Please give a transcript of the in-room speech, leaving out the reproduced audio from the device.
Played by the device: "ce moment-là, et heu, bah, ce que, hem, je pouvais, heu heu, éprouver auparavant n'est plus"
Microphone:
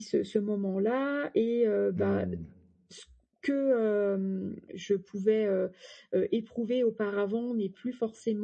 Mmh.

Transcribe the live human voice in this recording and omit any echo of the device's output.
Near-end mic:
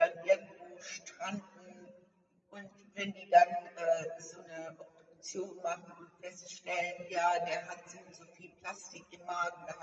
none

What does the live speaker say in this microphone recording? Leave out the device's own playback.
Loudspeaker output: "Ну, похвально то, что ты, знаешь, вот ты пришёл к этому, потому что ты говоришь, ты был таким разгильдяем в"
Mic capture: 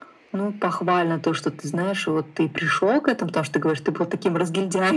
none

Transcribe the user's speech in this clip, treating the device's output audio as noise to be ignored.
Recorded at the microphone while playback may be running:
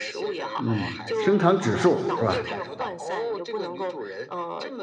嗯，升糖指数是吧？

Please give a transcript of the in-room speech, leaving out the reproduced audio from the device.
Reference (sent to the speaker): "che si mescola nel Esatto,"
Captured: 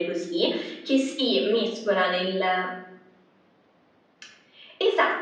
none

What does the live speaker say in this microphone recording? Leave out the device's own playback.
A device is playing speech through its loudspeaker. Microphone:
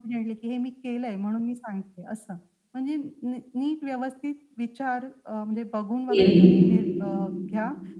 हं.

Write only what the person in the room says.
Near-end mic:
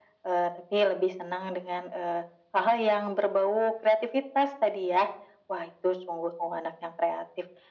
none

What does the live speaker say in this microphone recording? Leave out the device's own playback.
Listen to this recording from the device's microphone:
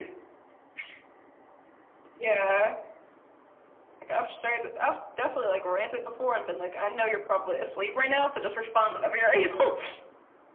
none

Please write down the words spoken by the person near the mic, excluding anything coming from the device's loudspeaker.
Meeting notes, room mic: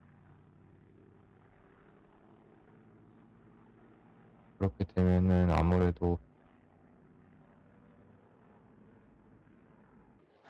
그렇게 되면은 아무래도

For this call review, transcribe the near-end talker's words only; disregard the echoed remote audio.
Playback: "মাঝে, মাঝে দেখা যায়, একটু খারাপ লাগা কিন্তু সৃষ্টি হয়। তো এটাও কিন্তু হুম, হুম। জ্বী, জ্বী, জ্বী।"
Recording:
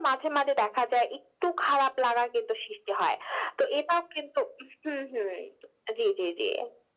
none

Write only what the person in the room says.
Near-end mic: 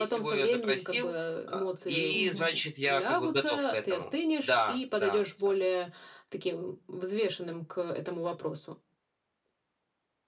Мгм.

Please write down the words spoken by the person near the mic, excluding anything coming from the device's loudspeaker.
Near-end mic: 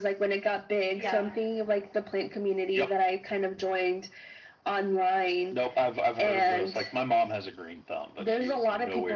Yeah.

